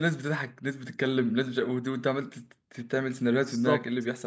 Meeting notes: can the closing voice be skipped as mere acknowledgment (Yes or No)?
No